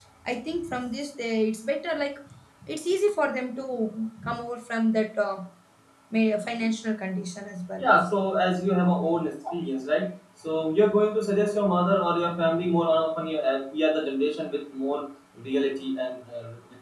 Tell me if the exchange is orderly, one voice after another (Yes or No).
Yes